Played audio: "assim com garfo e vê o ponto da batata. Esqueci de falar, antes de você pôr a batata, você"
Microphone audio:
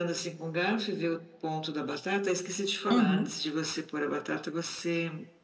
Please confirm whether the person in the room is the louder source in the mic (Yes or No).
Yes